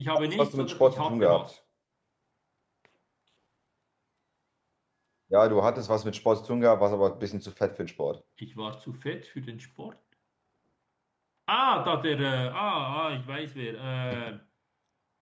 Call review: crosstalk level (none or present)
present